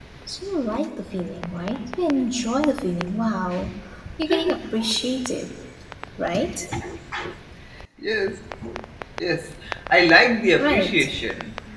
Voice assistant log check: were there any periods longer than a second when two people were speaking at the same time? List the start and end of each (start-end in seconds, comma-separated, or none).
none